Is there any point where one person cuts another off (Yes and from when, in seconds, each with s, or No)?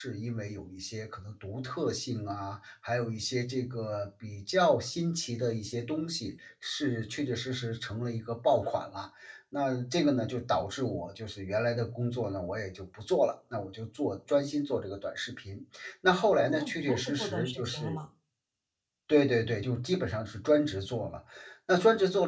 Yes, from 16.5 s